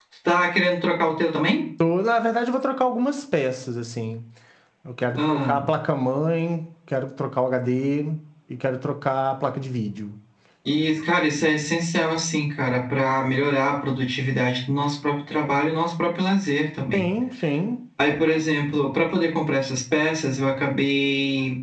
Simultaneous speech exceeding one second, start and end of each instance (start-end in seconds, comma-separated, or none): none